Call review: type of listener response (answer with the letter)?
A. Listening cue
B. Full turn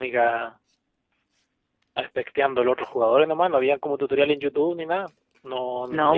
B